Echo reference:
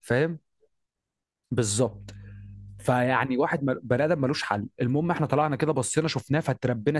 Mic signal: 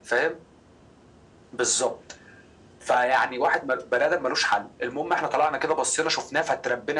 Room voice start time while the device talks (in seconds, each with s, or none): none